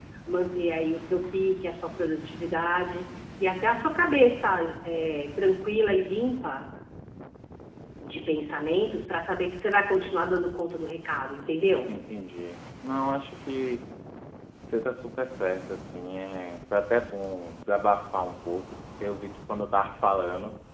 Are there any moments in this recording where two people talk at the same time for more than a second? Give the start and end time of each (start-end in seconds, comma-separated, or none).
none